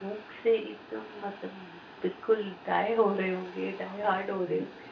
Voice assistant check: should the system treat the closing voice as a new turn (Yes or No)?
Yes